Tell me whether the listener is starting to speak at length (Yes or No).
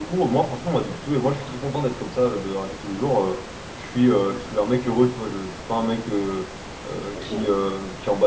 No